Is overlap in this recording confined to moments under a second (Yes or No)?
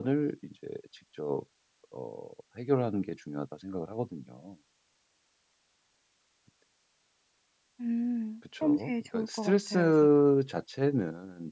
No